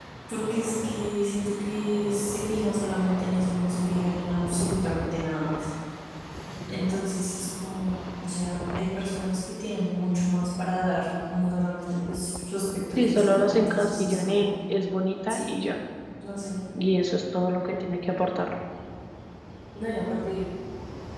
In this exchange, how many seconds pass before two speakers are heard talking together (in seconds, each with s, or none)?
13.0 s